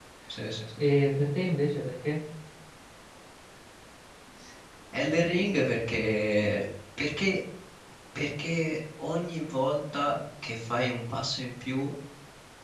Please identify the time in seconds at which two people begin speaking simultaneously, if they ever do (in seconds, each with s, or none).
none